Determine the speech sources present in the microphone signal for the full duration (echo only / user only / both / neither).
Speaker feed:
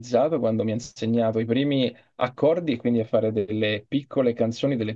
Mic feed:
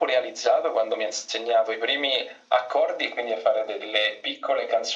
echo only